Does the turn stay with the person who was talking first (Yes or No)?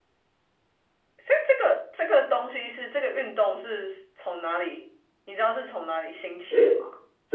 No